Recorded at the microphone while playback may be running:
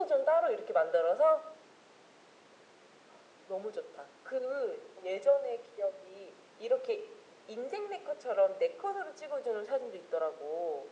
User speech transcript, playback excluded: none

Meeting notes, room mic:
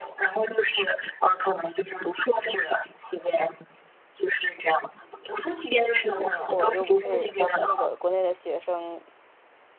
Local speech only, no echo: 我又不是那个国内的学生，

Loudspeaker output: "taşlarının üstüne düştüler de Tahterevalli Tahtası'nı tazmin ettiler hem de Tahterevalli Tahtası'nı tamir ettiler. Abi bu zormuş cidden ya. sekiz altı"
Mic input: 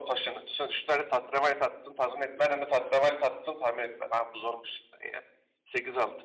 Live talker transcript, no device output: none

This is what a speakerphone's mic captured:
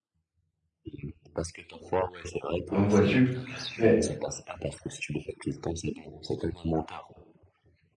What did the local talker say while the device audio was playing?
hein, vois-tu. Mais,

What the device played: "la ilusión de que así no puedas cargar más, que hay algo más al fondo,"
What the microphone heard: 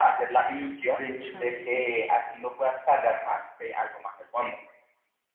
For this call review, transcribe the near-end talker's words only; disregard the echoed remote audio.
De hecho, sí.

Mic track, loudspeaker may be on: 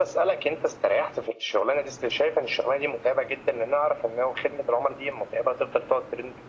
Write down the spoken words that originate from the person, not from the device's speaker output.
none

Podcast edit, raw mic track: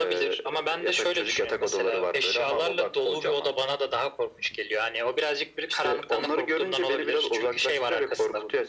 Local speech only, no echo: none

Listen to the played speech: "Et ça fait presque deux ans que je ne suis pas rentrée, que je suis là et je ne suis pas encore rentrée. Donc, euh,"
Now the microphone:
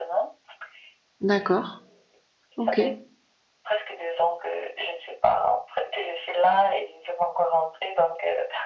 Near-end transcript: d'accord. OK.

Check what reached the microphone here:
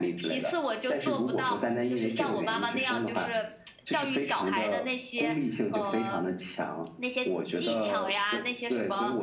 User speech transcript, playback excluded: none

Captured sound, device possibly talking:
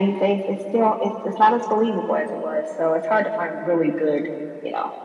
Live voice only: none

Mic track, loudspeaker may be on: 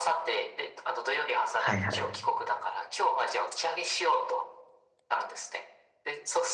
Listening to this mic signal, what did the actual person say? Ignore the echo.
はいはい。

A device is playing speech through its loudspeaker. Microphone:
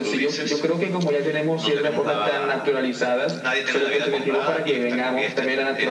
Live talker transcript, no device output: none

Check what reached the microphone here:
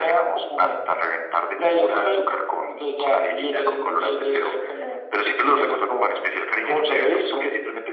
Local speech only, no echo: none

